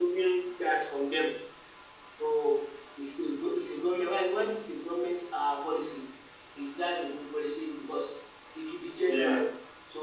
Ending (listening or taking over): listening